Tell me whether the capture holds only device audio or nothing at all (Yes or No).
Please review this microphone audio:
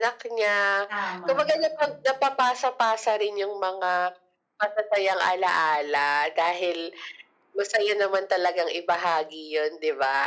No